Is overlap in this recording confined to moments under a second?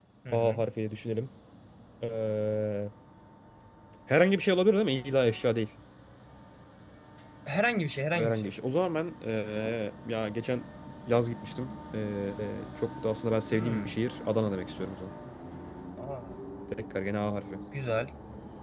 Yes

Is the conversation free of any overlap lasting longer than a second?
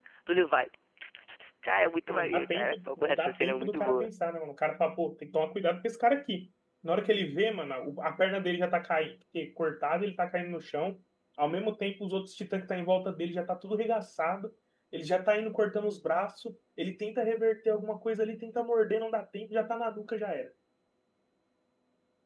No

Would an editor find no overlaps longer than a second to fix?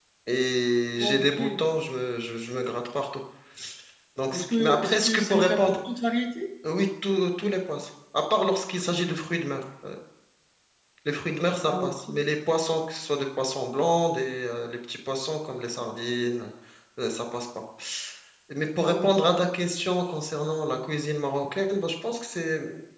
No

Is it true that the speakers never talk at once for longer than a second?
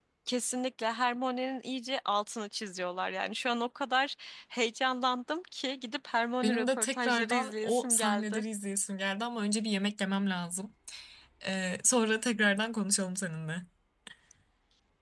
No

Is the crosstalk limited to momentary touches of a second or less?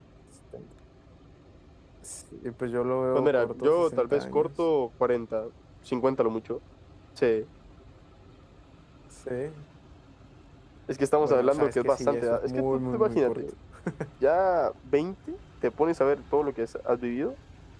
No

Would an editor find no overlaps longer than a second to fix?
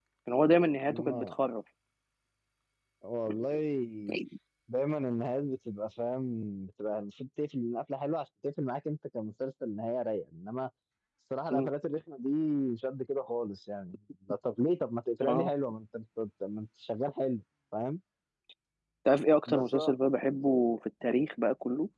Yes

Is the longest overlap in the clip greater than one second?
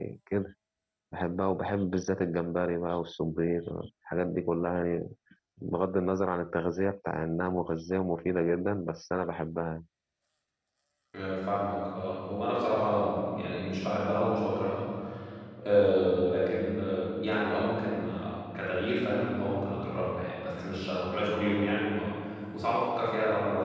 No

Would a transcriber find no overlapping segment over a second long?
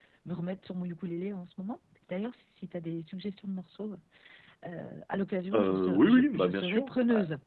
No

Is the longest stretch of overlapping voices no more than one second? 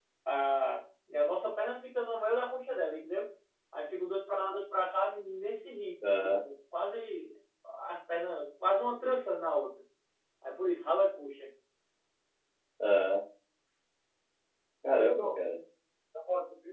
Yes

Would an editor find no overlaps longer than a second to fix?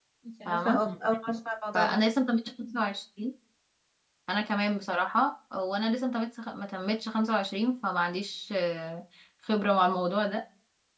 Yes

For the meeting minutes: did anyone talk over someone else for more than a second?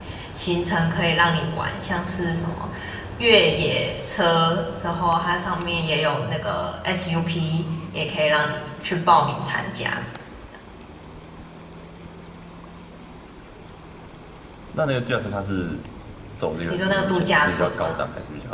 Yes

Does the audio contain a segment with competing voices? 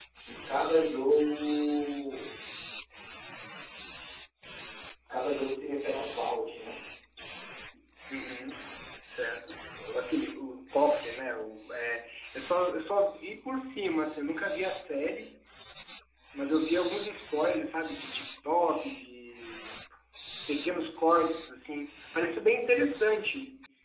No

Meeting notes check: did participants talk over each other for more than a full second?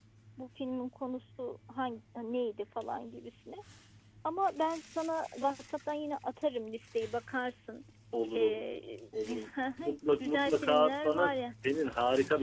Yes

